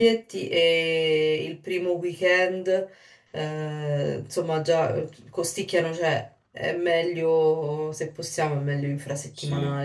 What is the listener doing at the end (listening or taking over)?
taking over